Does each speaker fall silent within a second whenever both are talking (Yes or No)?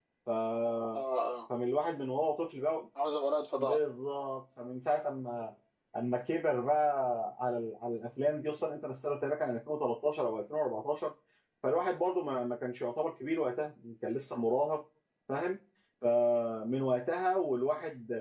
Yes